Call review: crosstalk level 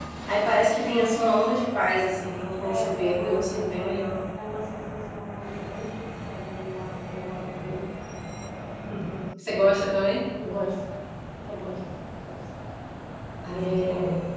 present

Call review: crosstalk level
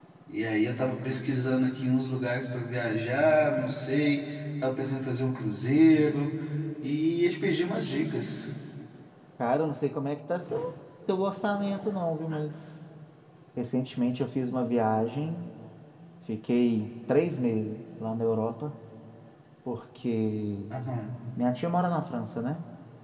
none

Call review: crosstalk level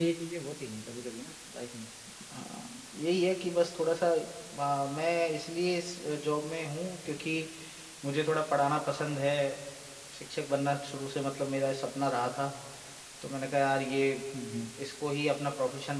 none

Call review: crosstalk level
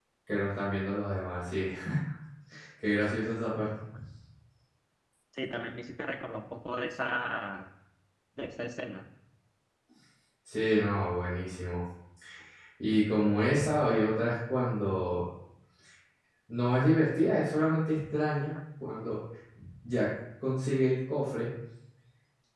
none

